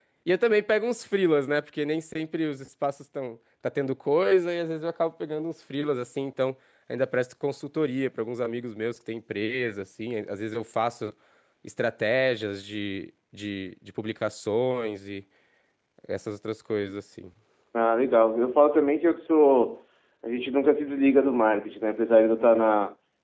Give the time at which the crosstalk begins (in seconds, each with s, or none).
none